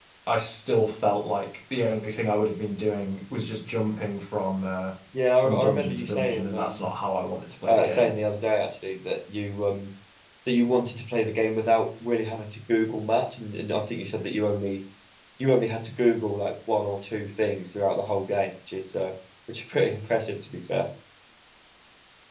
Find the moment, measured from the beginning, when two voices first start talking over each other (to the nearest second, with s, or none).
5 s